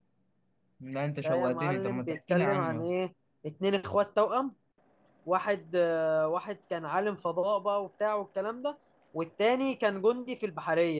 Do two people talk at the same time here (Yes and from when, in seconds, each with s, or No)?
Yes, from 1.2 s